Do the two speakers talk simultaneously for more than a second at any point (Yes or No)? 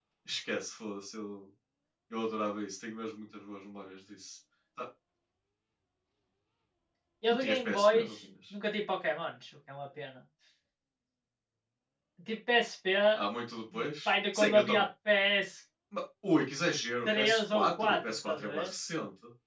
Yes